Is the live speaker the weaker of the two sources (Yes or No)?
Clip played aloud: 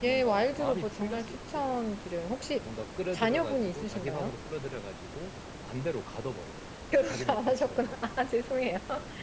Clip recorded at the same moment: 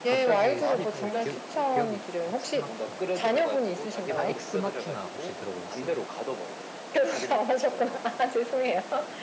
Yes